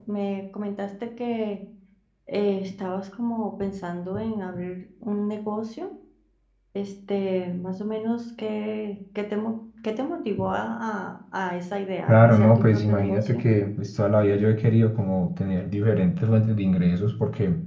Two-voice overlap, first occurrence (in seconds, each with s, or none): 12.1 s